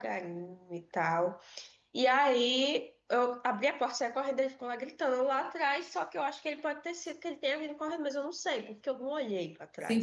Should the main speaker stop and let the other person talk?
Yes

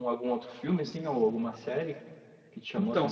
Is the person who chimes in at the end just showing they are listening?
No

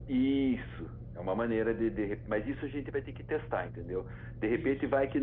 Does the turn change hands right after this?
No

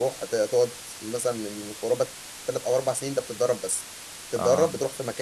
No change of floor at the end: Yes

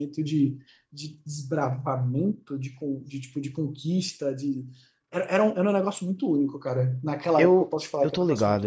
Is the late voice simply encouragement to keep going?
No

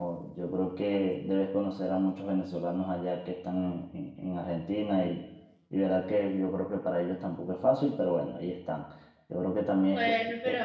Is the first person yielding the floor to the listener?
Yes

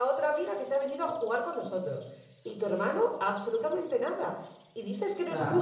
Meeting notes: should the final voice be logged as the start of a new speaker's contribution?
No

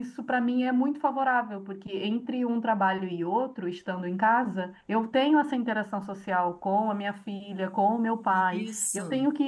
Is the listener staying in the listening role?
Yes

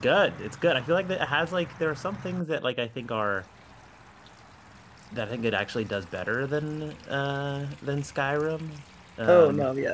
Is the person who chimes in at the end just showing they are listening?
No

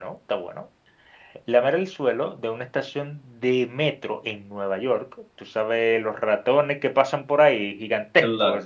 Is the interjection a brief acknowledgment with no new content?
Yes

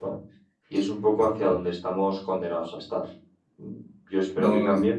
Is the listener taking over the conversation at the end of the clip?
No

